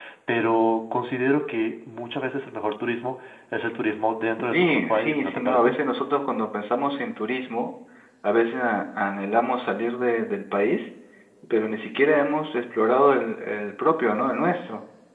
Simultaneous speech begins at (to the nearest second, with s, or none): 5 s